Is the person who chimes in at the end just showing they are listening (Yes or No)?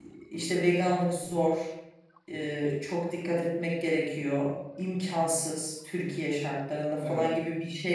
Yes